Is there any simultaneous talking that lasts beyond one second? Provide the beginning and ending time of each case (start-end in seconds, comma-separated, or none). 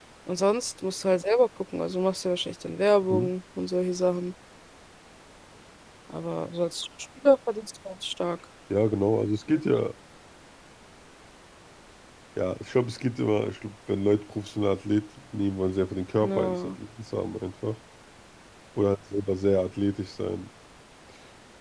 none